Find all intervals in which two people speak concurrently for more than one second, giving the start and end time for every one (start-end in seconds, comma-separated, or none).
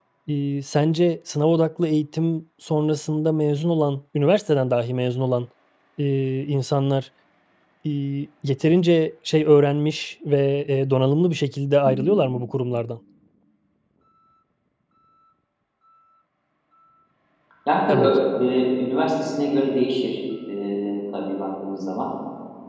none